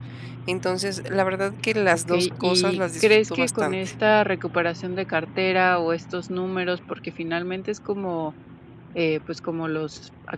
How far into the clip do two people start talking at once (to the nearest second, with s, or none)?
2 s